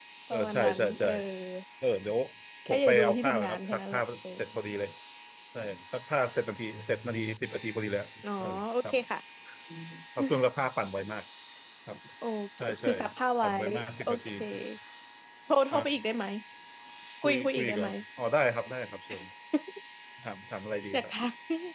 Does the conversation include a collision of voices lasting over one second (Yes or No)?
Yes